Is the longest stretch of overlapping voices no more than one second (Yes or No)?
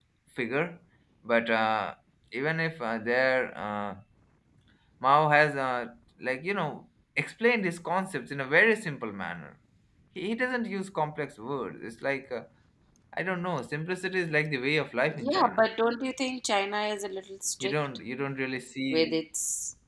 Yes